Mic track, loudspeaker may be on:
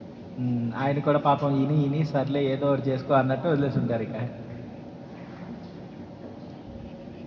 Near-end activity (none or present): present